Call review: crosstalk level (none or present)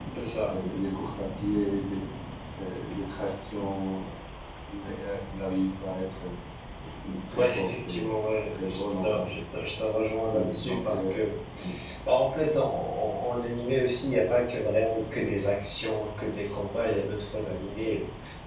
present